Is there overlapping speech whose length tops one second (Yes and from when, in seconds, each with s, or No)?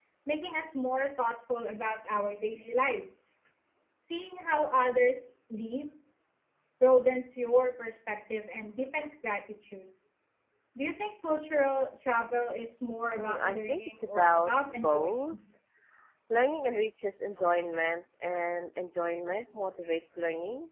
Yes, from 13.2 s